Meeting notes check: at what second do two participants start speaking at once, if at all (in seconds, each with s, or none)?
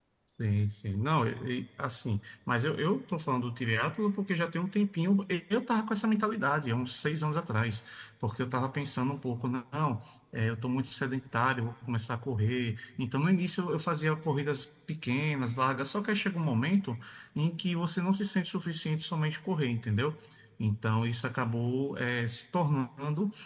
none